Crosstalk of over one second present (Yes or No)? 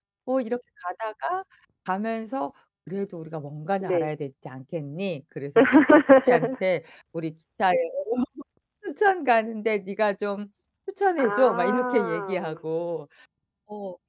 Yes